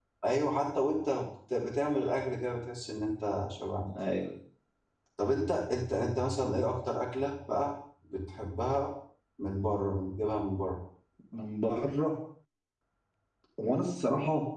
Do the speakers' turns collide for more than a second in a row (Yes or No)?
No